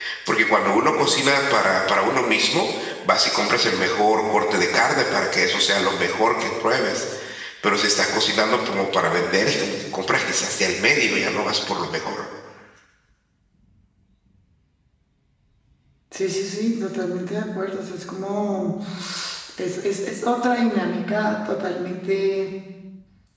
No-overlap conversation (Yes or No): Yes